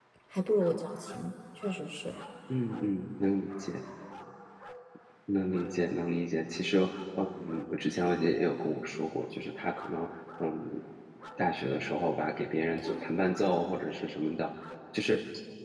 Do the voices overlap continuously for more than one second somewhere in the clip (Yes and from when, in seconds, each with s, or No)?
No